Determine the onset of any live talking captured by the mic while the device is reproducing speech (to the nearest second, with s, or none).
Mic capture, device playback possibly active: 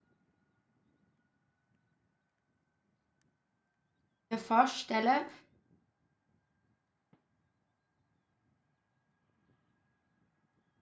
4 s